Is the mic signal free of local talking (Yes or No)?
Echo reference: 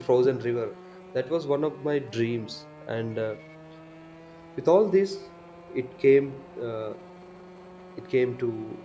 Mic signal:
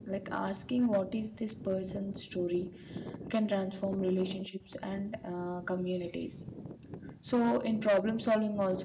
No